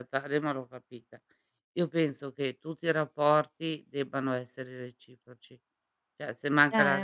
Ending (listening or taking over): listening